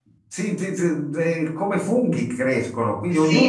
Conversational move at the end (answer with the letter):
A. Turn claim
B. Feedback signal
B